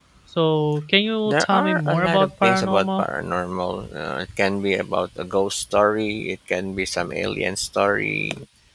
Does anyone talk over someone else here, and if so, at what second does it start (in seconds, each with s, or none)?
1.3 s